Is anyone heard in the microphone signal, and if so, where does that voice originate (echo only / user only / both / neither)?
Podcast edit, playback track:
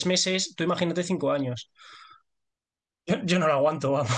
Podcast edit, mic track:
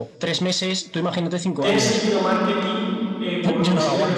both